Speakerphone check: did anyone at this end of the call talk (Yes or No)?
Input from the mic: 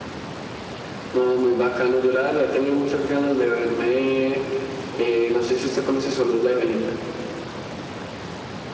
No